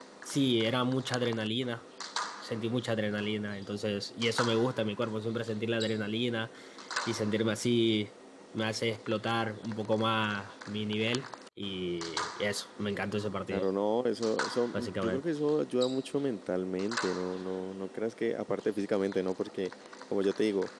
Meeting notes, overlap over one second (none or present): none